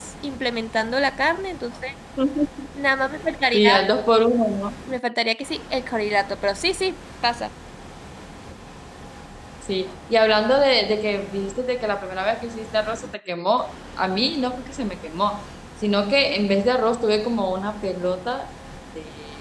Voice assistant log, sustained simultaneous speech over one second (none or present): none